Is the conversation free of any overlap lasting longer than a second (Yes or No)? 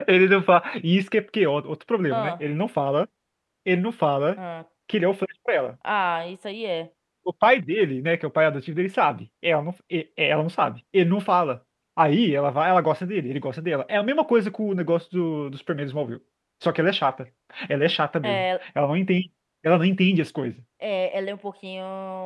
Yes